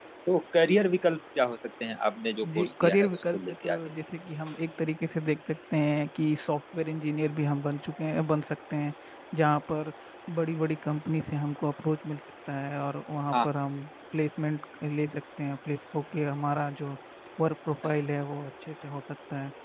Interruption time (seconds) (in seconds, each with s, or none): 2.4 s